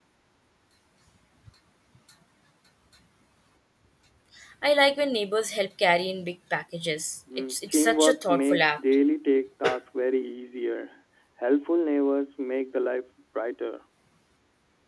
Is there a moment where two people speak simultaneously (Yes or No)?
Yes